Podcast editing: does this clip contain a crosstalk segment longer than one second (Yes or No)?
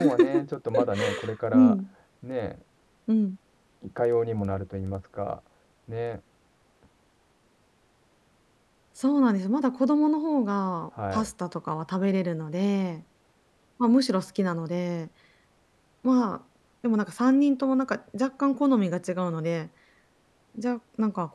No